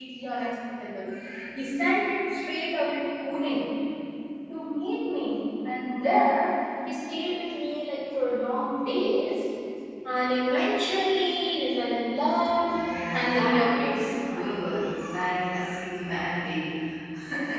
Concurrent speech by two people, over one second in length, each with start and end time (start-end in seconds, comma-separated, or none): 12.8-14.5